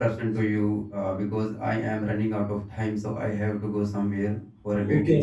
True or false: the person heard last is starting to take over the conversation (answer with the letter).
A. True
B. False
A